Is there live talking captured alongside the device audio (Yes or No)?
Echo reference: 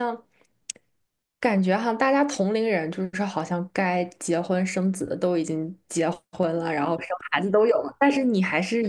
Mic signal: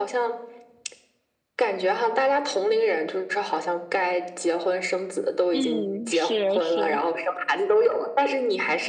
Yes